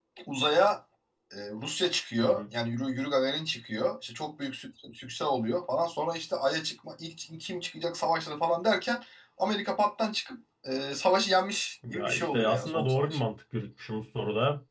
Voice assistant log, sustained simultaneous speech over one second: present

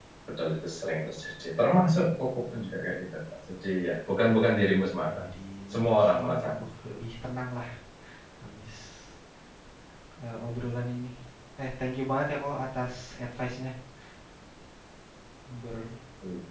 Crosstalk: present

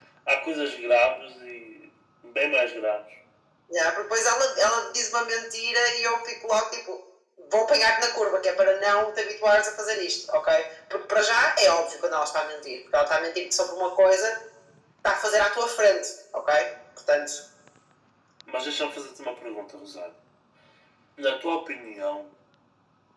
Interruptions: none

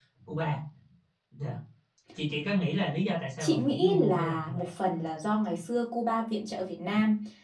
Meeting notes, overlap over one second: present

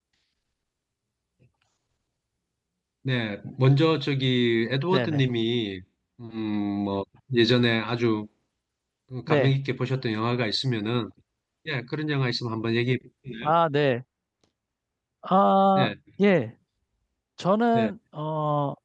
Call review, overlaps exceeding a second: none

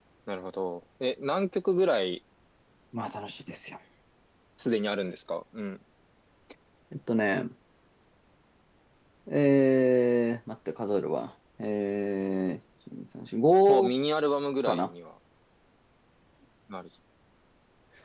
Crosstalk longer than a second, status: none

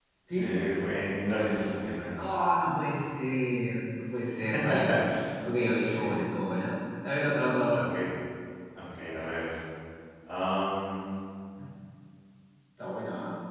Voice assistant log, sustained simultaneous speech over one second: none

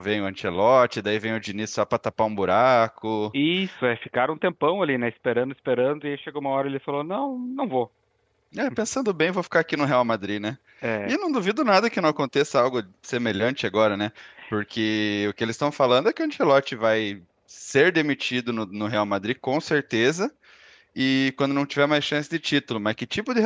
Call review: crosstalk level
none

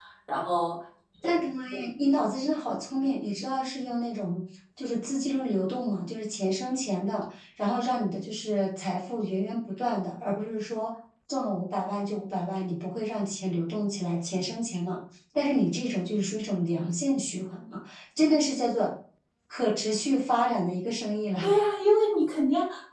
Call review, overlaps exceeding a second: none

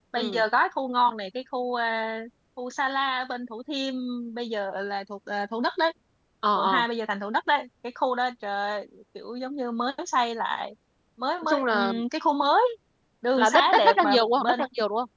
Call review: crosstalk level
present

